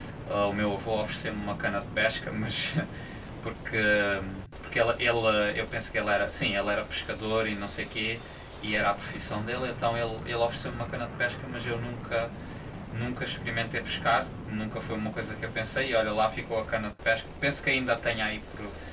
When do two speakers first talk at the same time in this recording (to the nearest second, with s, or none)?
none